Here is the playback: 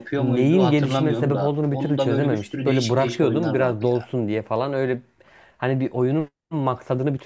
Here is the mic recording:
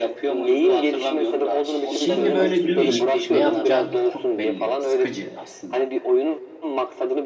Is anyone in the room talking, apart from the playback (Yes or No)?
Yes